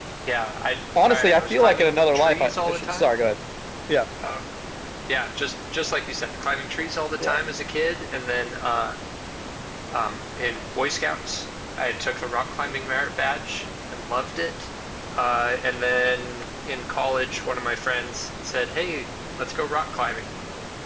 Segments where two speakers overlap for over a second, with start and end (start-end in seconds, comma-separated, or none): 1.0-3.1